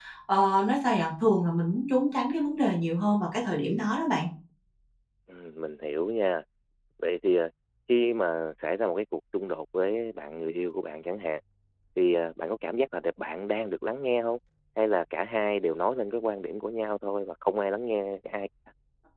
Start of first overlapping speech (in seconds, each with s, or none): none